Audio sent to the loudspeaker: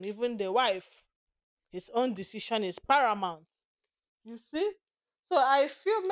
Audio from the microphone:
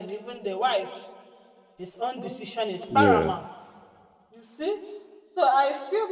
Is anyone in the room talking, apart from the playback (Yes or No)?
Yes